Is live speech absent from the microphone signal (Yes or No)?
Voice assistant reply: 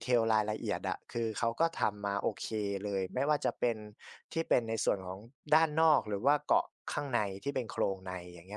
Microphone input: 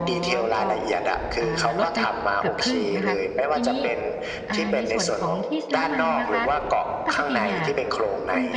No